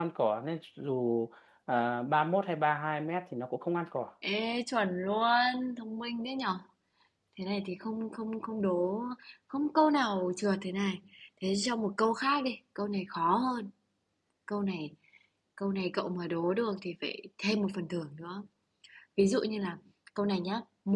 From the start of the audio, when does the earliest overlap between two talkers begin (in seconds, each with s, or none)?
none